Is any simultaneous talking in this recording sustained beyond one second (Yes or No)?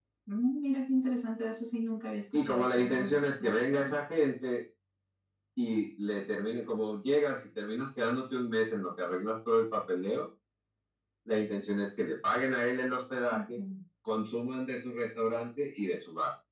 Yes